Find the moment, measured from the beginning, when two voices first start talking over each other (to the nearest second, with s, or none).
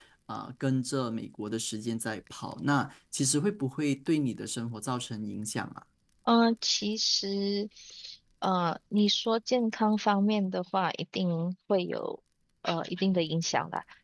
none